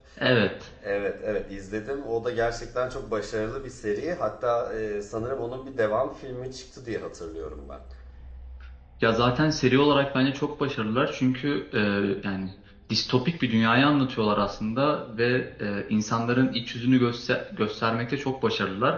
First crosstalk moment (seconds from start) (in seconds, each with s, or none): none